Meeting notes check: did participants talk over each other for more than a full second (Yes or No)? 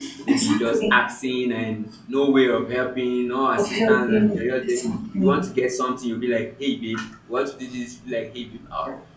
Yes